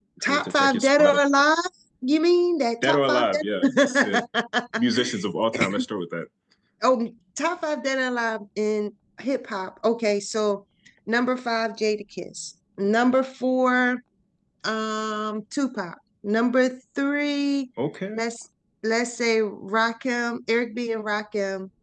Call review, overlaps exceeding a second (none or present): present